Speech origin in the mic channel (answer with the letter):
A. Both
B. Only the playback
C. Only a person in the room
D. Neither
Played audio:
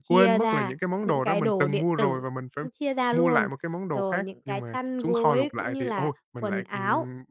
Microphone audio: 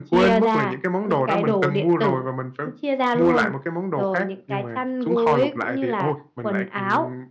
B